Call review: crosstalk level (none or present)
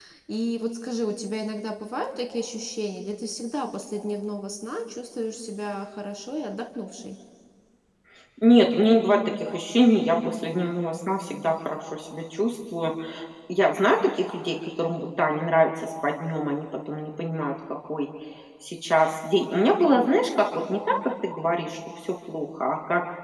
none